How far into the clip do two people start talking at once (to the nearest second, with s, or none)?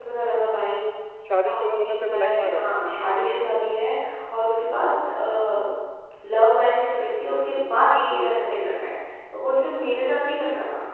1 s